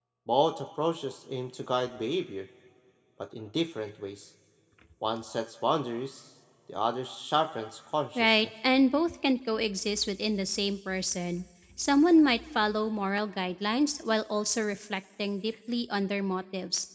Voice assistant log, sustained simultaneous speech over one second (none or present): none